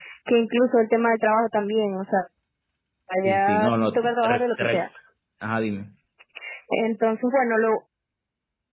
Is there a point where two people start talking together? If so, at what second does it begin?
3.2 s

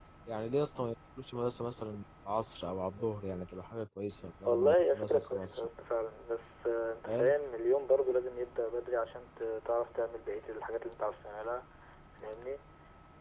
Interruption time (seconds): 4.4 s

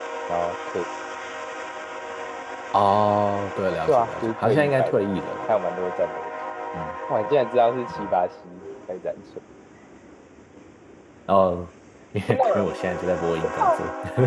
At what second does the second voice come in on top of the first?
3.9 s

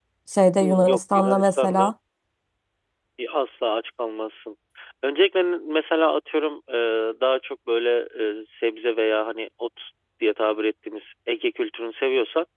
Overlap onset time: 0.6 s

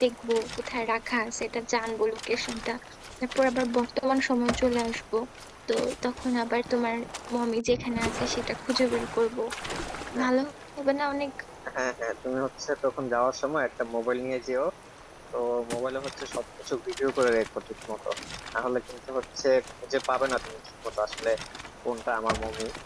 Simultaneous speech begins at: none

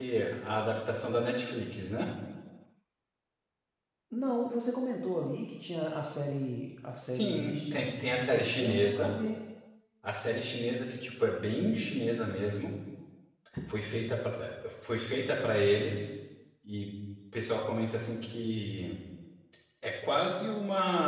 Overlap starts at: 7.0 s

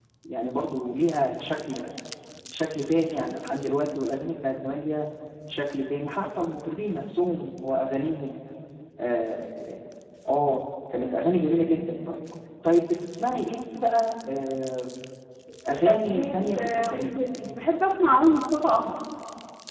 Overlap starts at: 15.8 s

